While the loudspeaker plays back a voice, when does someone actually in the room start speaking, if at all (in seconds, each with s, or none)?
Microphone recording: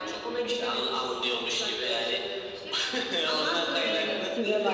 3.8 s